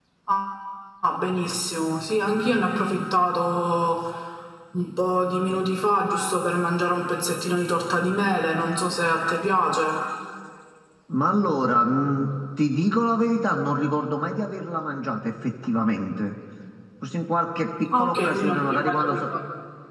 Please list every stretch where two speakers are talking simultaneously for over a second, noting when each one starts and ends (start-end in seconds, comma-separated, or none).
17.9-19.2